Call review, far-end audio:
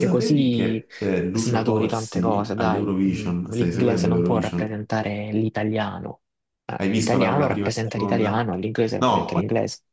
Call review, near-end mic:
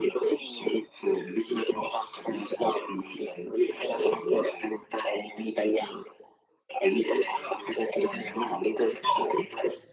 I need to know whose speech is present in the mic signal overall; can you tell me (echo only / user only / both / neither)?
echo only